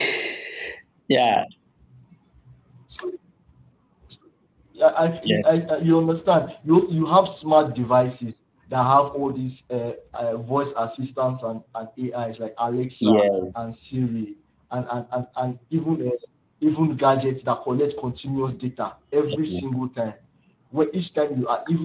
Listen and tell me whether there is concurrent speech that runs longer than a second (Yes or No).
No